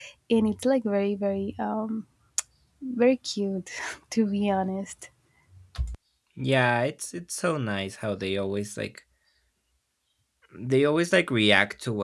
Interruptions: none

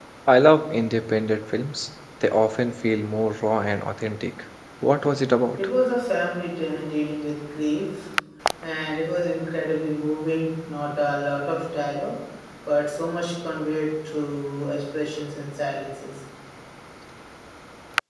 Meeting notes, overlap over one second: none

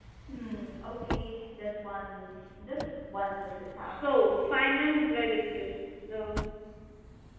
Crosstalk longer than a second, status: none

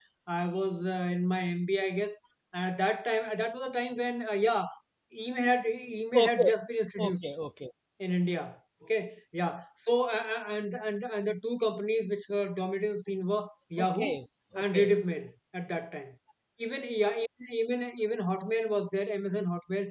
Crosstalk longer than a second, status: none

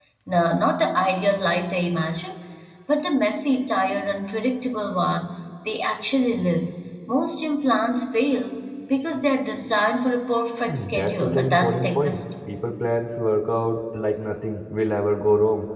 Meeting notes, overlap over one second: present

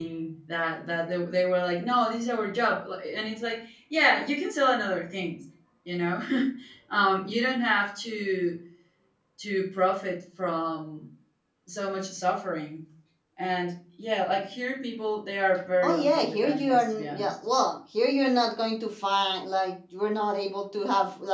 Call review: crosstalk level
present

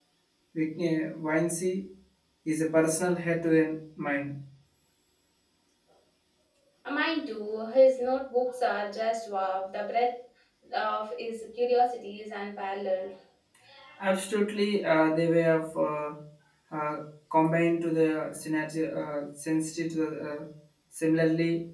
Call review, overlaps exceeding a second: none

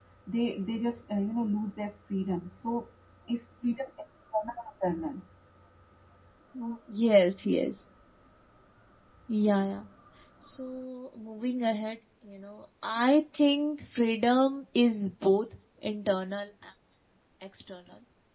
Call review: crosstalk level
none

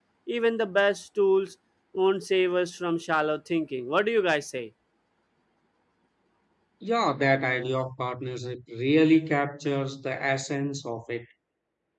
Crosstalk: none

